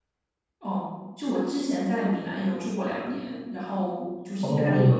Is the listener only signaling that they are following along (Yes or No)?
Yes